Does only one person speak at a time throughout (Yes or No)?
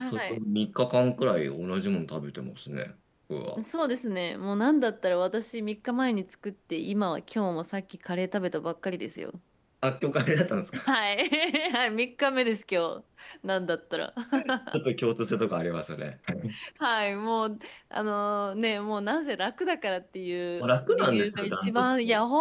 No